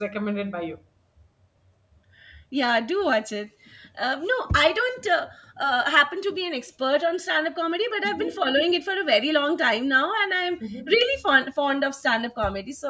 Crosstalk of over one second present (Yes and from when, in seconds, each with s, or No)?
No